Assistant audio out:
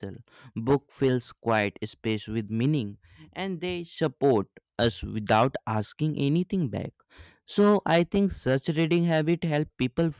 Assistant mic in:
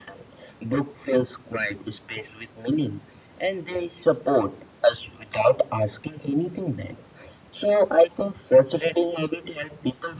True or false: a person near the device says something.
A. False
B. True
A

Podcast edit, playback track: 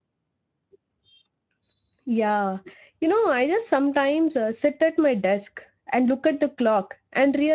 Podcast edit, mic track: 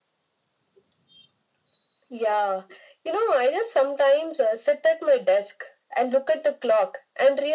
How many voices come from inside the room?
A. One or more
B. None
B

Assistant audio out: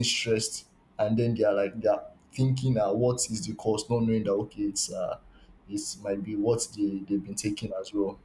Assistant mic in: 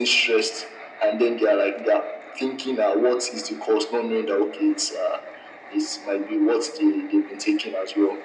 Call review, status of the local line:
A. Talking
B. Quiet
B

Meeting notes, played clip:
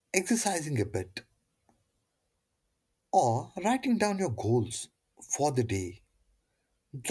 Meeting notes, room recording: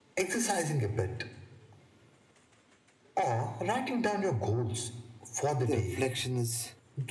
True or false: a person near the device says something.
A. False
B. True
B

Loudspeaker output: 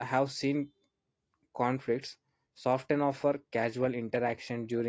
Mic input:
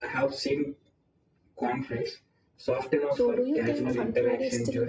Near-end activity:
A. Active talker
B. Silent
A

